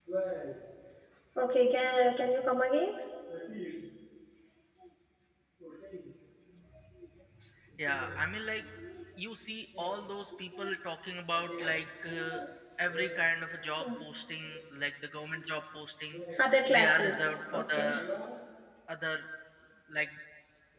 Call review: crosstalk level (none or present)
present